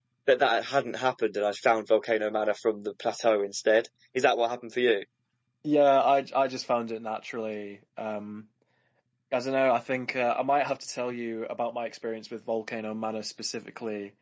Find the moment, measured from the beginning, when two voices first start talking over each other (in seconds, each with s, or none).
none